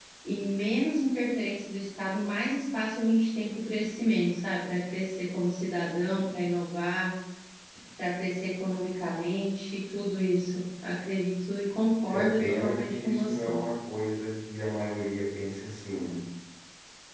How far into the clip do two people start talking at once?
12 s

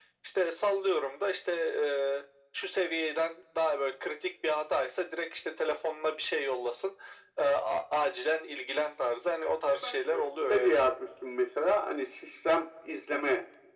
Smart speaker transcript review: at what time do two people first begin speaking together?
9 s

